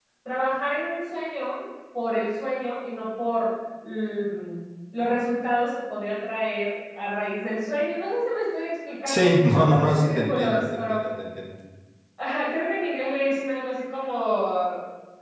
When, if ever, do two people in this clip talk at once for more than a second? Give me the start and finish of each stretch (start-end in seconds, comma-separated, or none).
9.1-11.0